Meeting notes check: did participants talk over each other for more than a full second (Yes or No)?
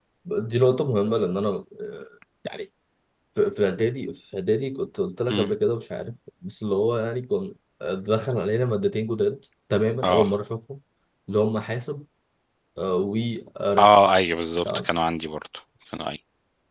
No